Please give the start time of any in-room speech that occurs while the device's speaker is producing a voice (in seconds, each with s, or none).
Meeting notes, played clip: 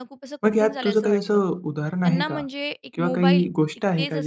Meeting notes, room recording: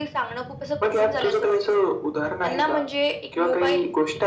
none